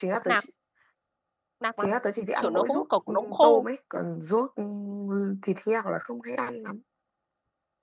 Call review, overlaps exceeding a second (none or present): present